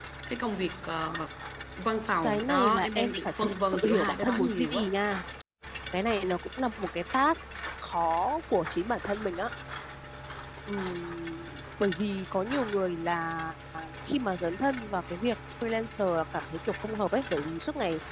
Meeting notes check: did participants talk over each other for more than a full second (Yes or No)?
Yes